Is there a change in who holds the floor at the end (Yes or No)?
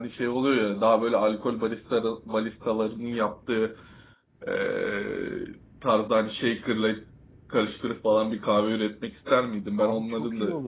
Yes